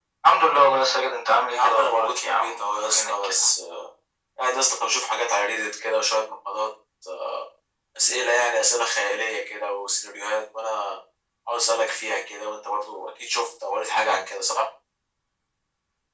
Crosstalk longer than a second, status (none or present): present